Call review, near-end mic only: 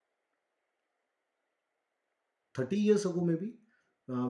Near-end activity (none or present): present